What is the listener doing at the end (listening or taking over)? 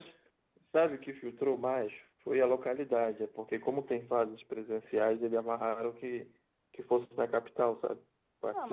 taking over